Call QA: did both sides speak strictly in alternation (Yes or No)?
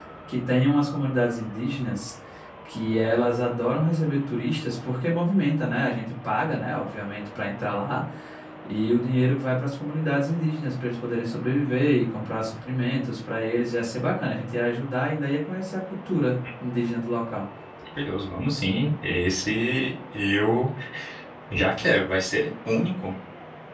Yes